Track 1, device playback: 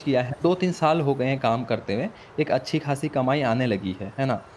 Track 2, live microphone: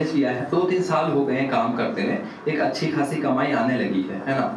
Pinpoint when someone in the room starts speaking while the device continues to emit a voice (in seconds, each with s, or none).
none